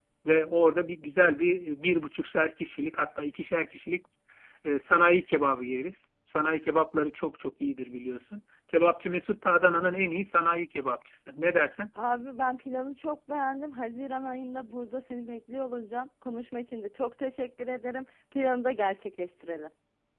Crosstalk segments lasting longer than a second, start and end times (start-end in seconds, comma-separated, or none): none